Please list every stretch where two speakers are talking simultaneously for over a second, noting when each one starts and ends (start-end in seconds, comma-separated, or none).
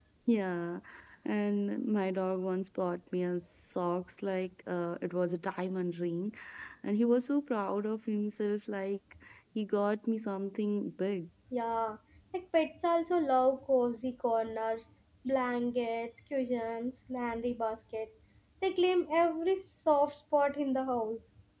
none